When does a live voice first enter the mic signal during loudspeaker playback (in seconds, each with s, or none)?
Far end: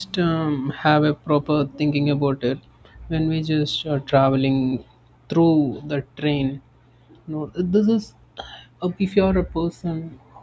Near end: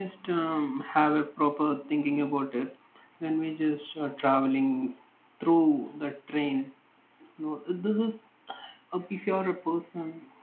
none